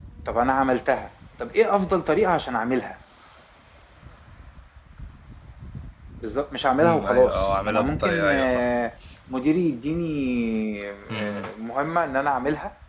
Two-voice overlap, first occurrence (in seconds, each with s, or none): 6.8 s